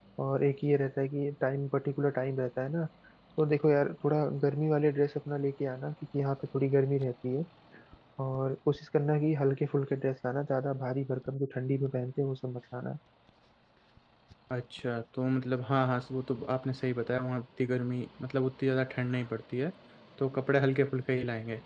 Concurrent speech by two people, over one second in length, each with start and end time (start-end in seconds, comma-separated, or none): none